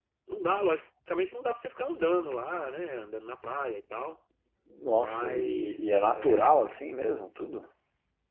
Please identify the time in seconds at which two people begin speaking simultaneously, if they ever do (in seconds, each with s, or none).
5.0 s